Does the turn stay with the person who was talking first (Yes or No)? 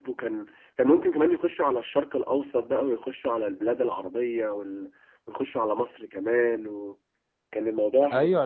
No